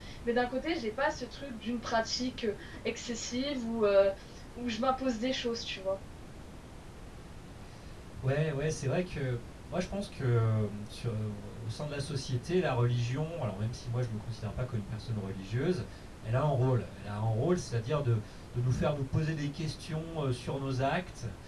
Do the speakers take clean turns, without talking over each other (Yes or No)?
Yes